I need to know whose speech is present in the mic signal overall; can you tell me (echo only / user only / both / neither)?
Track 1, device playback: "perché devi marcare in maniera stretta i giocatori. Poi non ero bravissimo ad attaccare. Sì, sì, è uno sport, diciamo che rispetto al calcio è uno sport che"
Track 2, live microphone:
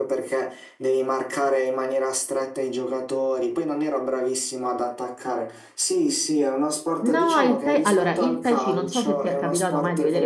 both